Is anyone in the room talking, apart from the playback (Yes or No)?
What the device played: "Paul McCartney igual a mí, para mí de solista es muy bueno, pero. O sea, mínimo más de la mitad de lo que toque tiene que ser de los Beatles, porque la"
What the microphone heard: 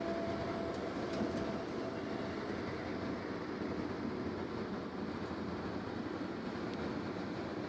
No